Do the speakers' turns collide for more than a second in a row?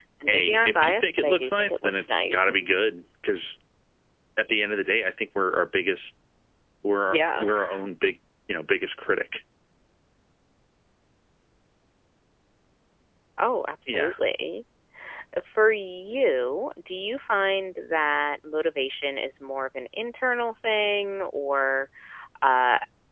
Yes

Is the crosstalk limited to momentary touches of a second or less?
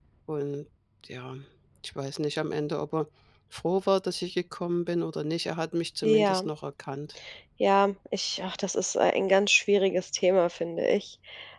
Yes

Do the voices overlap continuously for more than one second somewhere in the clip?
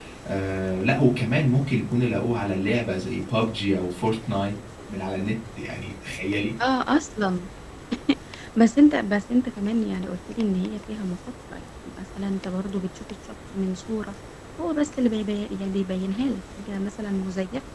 No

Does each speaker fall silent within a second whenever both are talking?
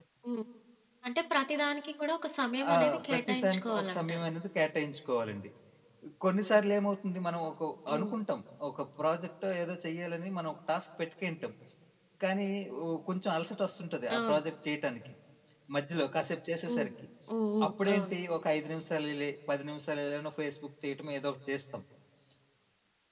No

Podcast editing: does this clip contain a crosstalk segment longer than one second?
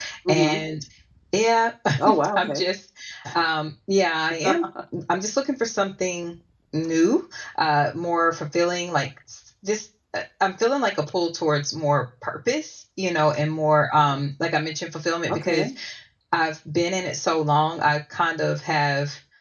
No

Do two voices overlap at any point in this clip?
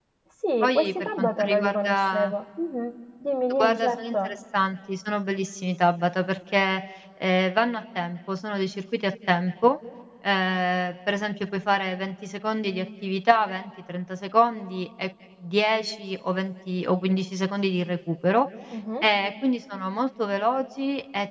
Yes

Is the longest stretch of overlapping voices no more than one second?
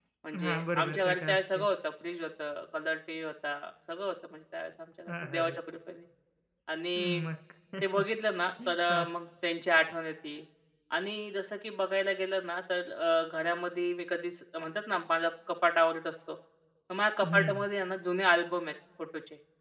No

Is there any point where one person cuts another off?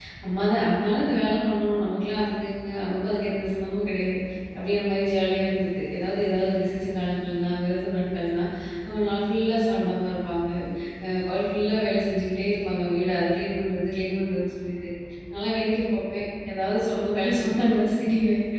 No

